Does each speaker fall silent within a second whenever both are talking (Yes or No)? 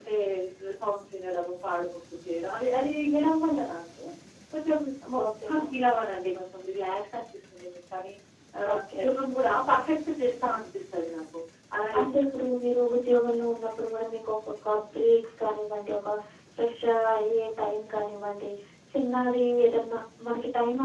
Yes